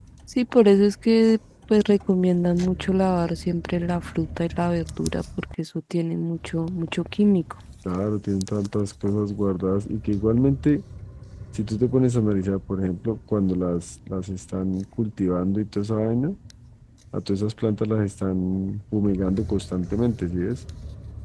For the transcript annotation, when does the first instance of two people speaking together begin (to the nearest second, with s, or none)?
none